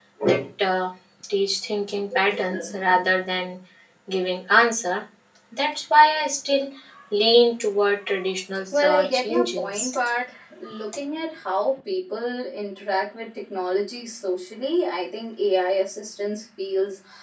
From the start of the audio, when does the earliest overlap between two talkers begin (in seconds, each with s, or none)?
8.7 s